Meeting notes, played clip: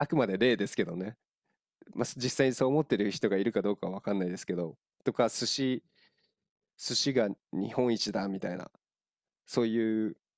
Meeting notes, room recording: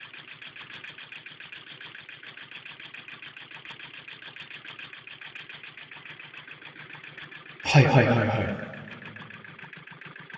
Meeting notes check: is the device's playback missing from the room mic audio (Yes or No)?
Yes